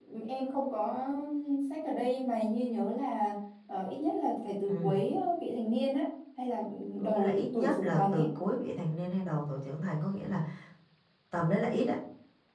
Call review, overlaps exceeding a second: present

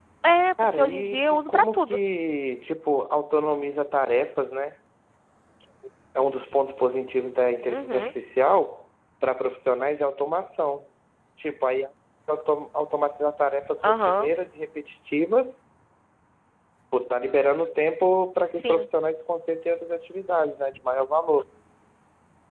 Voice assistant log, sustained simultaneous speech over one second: present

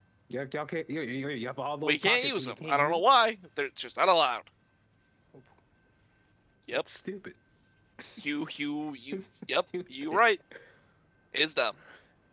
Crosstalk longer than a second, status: present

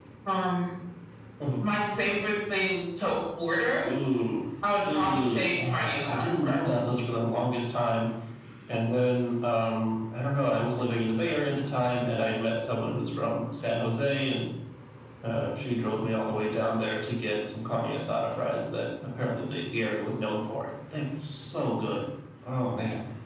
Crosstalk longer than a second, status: present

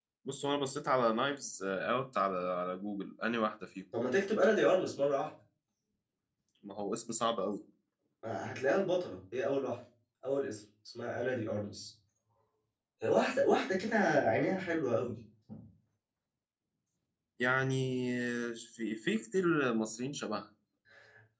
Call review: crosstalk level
none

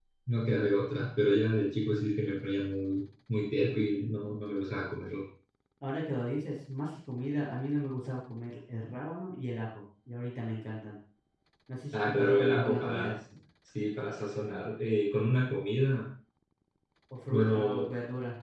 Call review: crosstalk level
present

